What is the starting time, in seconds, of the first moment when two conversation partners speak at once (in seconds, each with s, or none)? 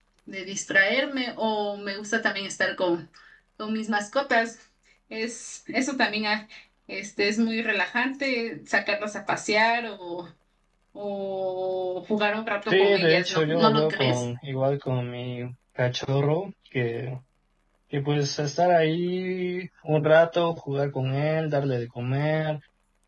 12.7 s